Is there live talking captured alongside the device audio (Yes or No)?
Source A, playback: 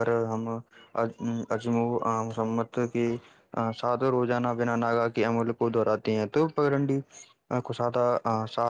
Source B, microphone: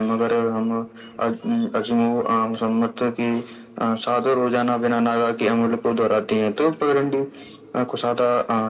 No